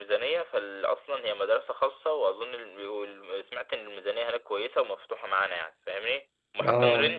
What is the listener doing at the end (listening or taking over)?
listening